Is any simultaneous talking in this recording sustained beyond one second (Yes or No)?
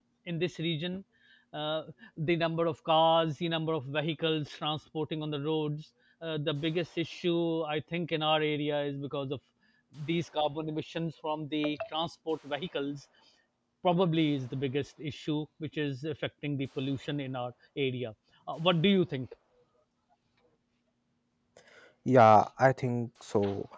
No